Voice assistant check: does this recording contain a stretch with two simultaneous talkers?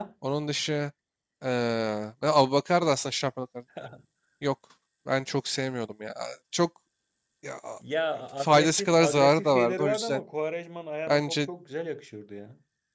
Yes, from 8.4 s

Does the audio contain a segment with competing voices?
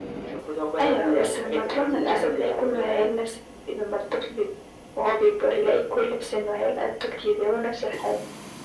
Yes, from 0.8 s

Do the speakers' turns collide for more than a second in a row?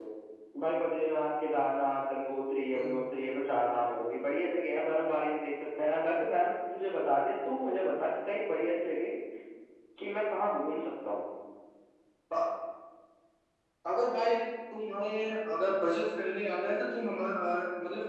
No

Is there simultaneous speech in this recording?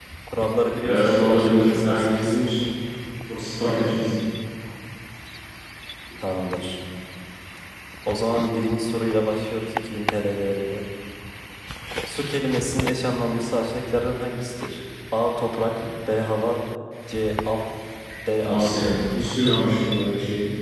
Yes, from 0.8 s

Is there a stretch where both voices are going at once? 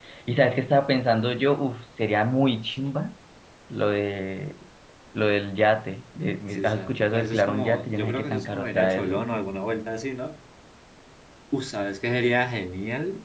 Yes, from 6.5 s

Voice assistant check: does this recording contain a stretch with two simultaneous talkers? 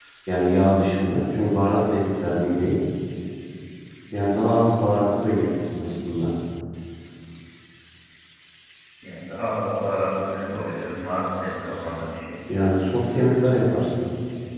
No

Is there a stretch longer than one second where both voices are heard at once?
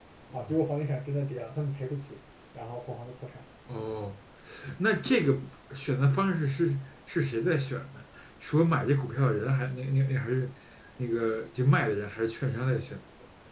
No

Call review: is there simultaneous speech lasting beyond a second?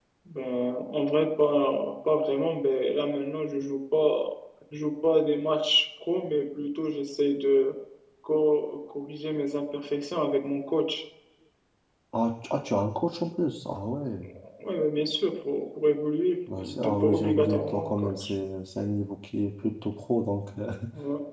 Yes, from 16.5 s

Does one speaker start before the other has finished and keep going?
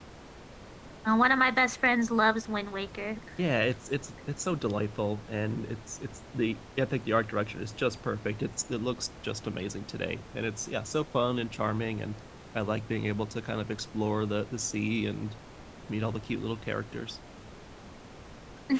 No

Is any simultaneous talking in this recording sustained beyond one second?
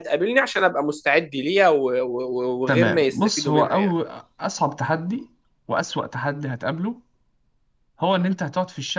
Yes, from 2.7 s

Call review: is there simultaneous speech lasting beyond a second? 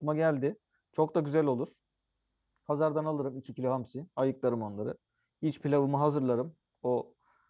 No

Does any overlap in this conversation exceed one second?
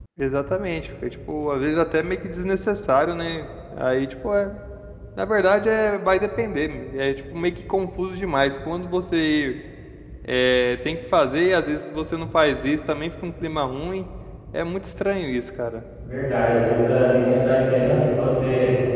No

